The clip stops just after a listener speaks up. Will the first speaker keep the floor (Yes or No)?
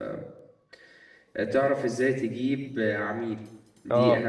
Yes